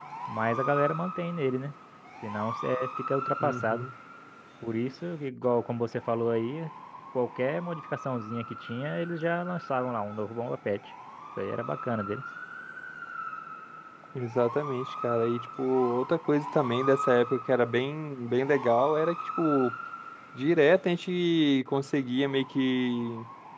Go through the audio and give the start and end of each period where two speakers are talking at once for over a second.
none

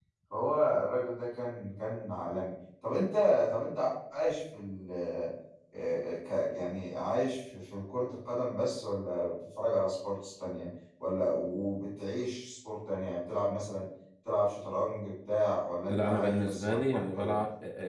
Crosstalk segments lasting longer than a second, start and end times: 15.9-17.4

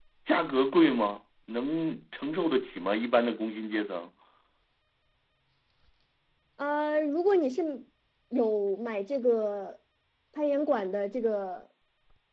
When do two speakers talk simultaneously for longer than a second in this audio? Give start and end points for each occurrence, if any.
none

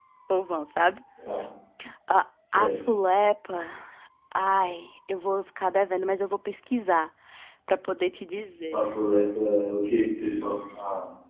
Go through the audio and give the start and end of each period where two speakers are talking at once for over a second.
none

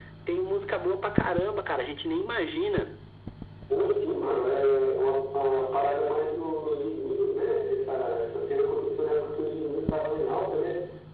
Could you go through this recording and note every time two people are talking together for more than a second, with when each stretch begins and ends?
none

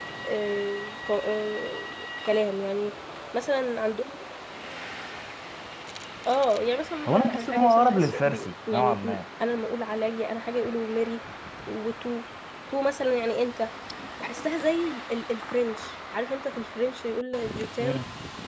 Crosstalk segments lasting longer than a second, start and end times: 7.1-9.2

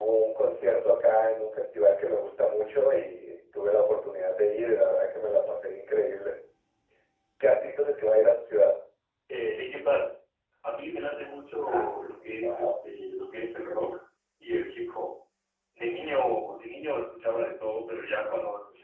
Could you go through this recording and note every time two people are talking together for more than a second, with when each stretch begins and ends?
none

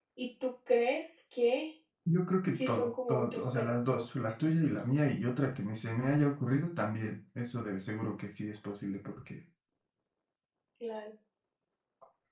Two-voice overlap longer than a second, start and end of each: 2.5-4.0

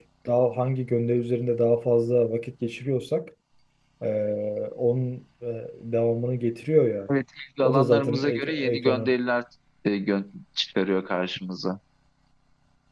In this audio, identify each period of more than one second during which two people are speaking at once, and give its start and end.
7.6-9.1

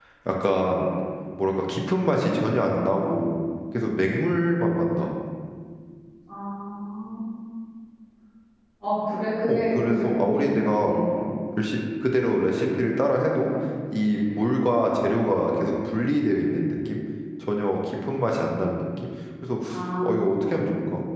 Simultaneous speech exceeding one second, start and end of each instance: 9.5-10.9

